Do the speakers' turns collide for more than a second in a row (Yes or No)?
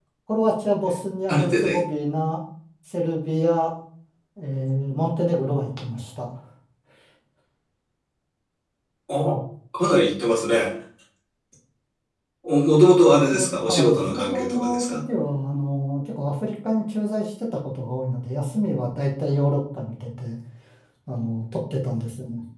Yes